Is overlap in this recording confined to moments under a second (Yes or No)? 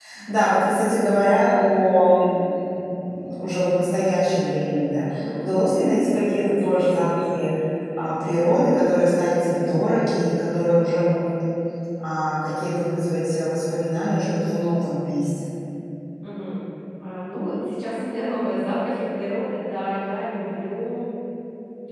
Yes